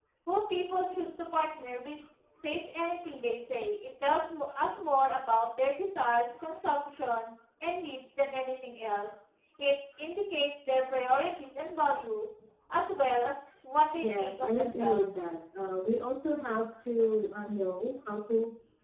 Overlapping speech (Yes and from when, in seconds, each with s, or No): Yes, from 14.0 s